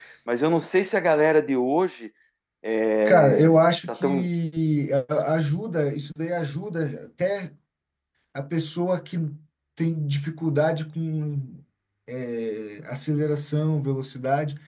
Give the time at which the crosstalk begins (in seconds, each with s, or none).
3.0 s